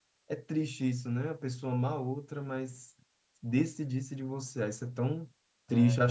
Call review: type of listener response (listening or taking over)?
listening